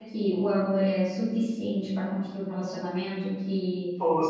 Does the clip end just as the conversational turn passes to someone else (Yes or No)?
No